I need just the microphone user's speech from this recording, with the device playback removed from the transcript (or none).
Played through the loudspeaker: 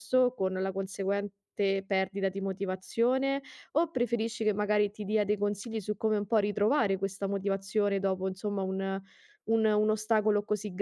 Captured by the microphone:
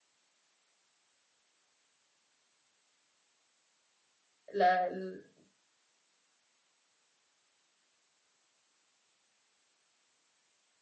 la- l-